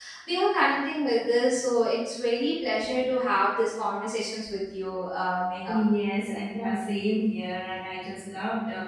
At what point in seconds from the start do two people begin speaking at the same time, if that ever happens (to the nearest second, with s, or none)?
none